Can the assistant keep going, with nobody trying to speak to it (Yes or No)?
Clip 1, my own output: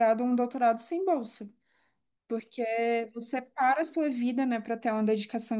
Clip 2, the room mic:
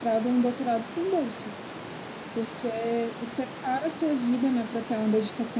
Yes